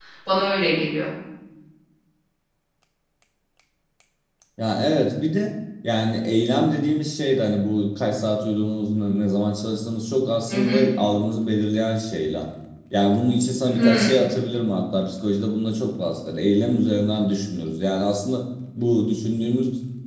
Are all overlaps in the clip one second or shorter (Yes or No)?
Yes